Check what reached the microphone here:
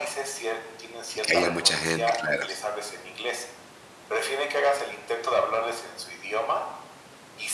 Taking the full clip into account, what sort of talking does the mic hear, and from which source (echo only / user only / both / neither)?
both